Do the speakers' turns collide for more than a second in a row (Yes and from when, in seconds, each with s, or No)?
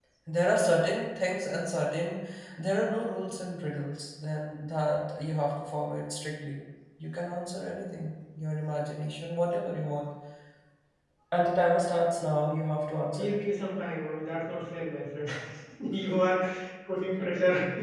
No